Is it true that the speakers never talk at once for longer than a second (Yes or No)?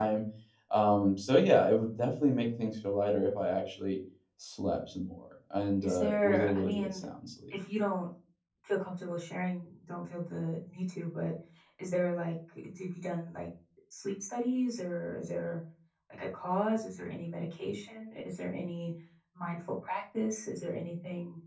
No